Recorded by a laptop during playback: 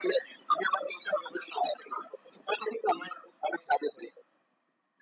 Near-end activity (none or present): none